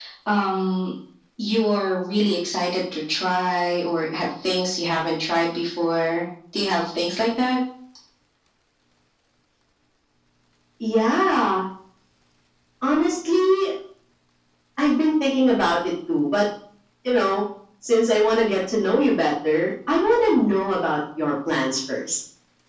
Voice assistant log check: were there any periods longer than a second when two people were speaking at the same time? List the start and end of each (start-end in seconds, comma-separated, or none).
none